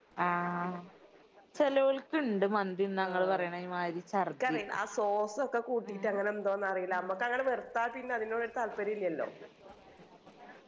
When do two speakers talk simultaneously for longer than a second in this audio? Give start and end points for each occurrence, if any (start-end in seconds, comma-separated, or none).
none